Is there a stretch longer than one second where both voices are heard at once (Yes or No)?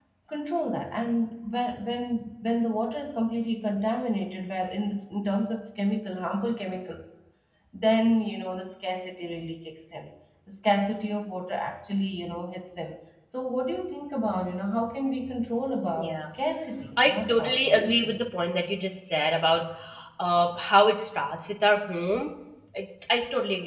Yes